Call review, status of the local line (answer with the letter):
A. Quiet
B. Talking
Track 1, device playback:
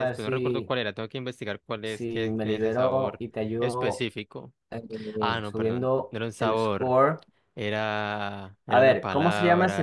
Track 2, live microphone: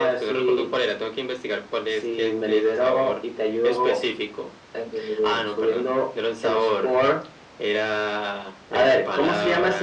A